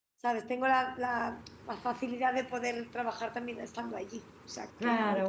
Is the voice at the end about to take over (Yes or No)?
Yes